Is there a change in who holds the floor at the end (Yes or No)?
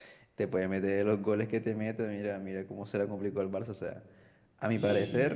No